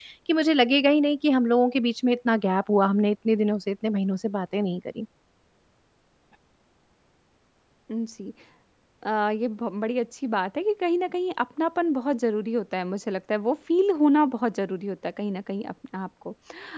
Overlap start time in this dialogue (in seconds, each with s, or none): none